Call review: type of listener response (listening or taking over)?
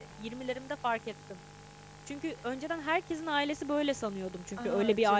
taking over